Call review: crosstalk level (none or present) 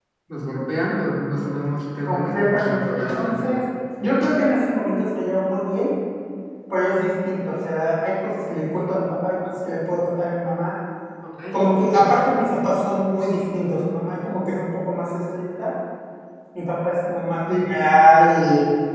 present